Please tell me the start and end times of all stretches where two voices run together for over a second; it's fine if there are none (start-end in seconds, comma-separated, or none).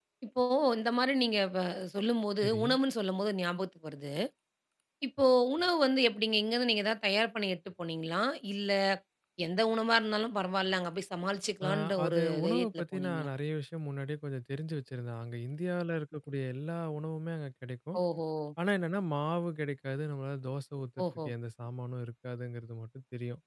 11.7-13.3